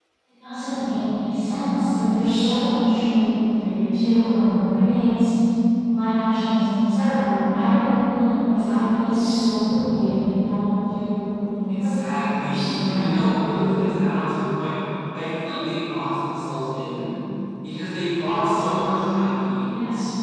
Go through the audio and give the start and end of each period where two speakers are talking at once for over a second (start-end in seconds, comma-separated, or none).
11.7-13.1